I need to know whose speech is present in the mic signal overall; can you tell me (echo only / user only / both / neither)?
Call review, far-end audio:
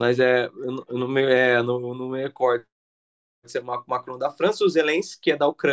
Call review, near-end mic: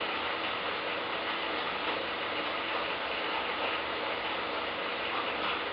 neither